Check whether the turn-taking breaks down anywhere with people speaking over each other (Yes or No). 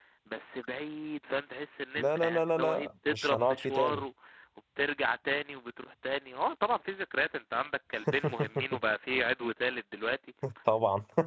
Yes